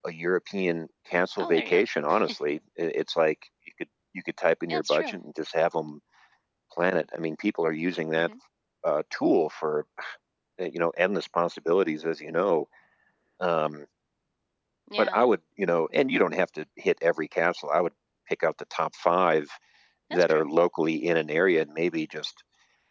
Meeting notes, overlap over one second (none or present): none